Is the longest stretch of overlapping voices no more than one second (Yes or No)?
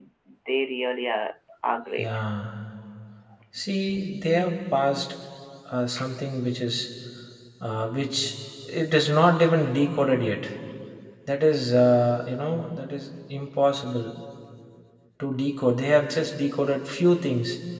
Yes